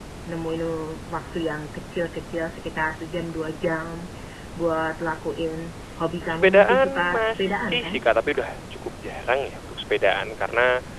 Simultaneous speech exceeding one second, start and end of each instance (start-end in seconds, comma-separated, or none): 6.3-8.0